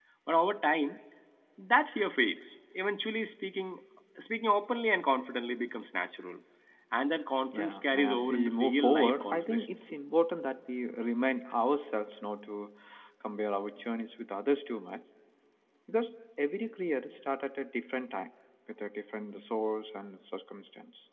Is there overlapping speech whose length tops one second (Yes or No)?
Yes